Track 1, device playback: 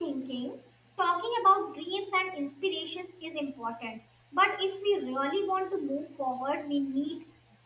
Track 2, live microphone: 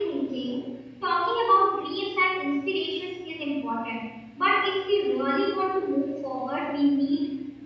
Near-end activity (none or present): none